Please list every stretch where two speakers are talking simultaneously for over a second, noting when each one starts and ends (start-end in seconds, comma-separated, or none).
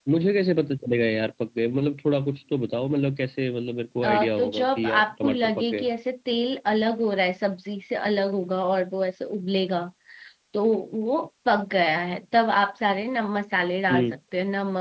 4.0-5.9